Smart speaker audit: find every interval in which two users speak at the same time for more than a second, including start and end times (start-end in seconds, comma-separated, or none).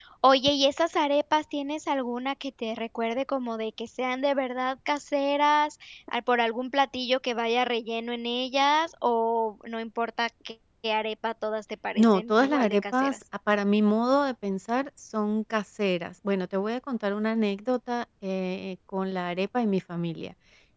12.0-13.2